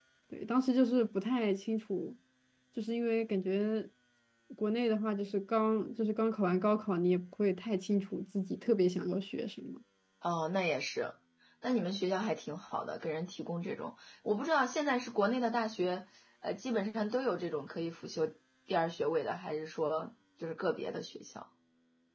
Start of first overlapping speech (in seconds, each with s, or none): none